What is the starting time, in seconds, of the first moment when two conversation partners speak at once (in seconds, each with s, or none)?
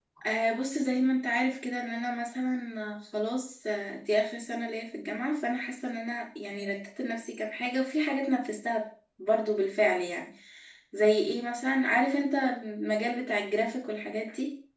none